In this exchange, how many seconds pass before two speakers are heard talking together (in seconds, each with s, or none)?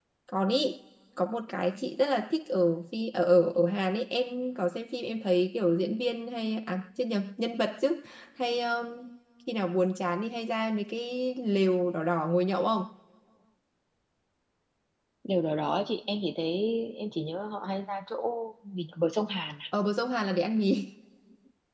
none